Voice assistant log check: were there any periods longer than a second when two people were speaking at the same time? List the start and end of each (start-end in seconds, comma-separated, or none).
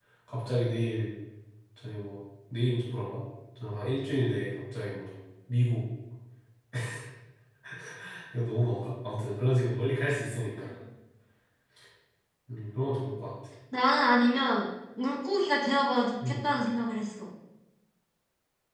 none